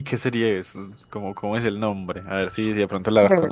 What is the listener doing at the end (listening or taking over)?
taking over